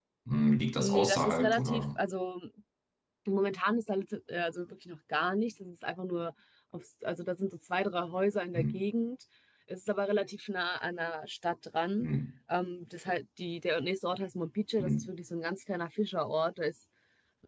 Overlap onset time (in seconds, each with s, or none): 0.8 s